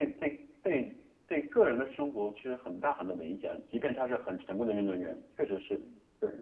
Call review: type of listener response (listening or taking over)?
taking over